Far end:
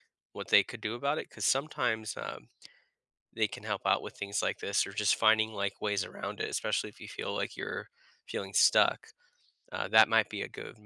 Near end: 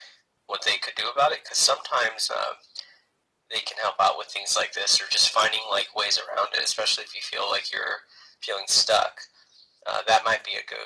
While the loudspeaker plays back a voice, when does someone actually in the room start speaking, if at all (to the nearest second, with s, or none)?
none